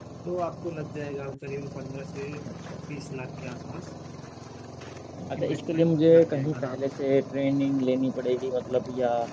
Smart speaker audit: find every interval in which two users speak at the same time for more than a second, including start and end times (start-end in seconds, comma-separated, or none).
5.4-6.8